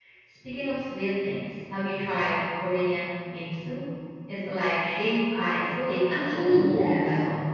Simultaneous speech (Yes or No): Yes